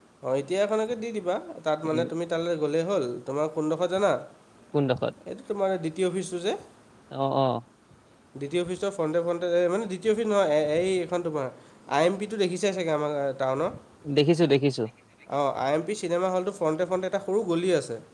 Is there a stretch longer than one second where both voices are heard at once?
No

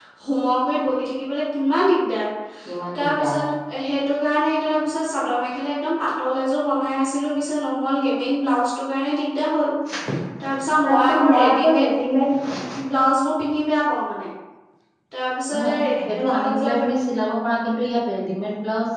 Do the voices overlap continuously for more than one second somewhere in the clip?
Yes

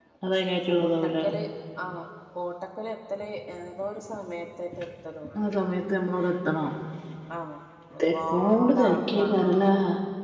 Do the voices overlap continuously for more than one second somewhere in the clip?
Yes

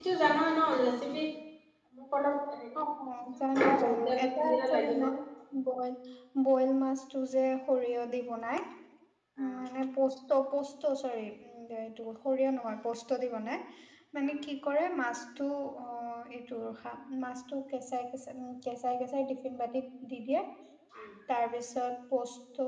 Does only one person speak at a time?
No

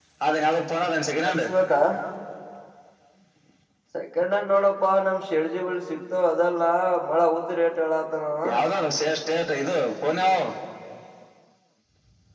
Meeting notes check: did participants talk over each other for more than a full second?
No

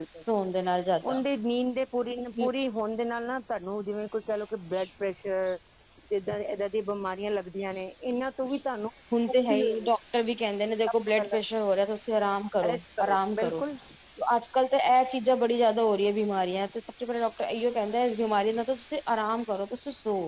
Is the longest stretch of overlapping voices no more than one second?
Yes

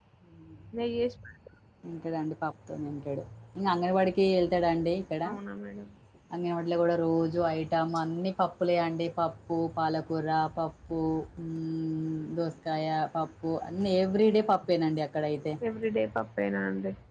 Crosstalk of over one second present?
No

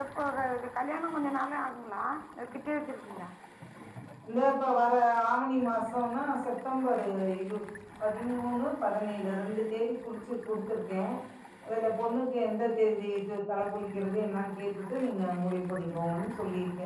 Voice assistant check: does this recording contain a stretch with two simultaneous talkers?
No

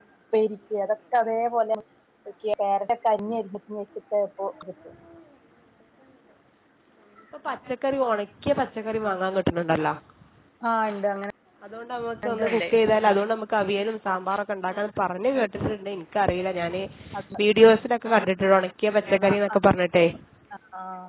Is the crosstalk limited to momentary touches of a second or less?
Yes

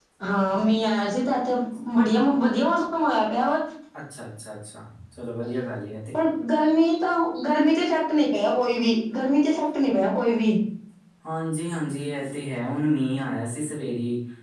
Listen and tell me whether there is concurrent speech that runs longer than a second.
No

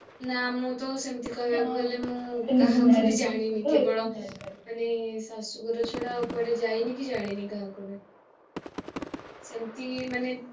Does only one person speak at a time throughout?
No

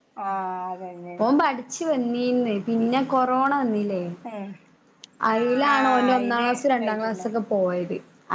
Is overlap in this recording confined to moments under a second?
No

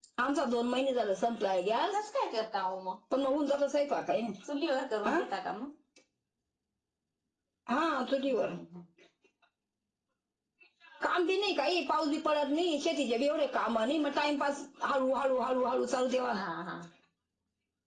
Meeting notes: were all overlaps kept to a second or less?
Yes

